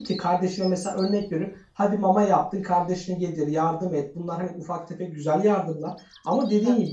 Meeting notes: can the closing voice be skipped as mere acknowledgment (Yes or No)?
Yes